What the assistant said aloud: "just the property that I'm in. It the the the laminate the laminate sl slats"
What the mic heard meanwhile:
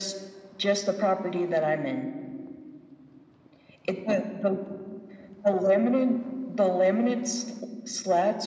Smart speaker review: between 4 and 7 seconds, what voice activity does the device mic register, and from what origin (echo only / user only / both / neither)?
echo only